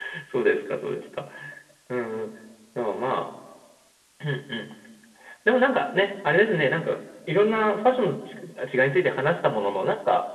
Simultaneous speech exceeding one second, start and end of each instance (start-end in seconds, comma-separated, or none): none